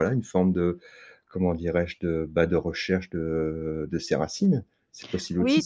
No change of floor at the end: No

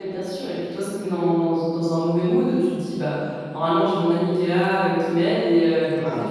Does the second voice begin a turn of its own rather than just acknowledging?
No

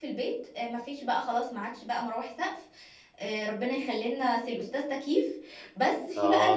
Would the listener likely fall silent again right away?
Yes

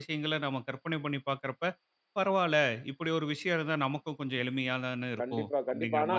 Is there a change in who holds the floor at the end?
Yes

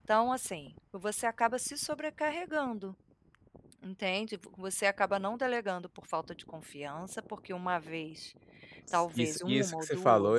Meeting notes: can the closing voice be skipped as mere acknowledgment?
No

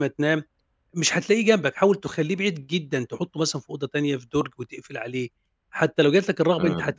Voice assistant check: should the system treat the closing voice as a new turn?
No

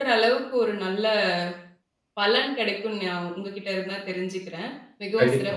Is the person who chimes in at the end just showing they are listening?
No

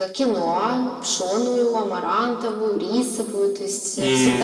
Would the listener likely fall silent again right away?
No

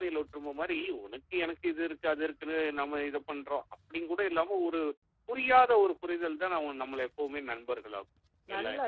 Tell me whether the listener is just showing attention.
No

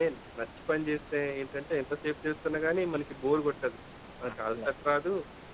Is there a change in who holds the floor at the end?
No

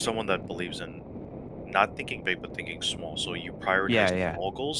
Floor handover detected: No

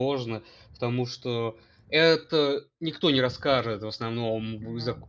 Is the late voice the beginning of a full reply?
No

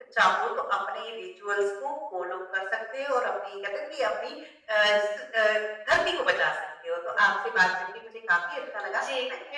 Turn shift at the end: Yes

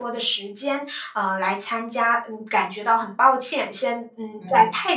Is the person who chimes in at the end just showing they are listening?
Yes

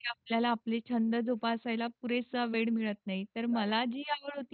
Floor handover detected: No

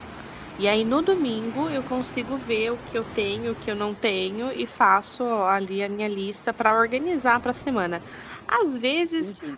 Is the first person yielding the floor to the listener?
No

